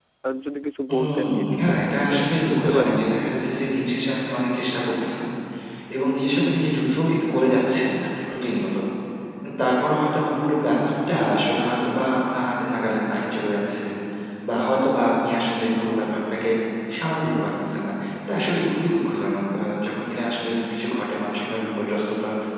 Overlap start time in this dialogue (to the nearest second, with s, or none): 1 s